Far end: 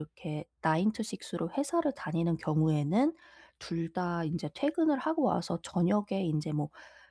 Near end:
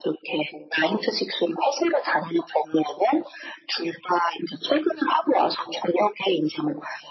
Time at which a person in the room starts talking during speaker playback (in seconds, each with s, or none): none